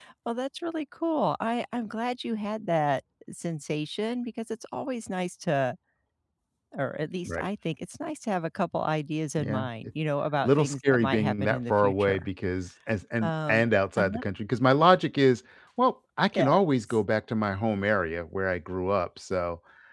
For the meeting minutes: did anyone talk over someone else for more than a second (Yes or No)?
Yes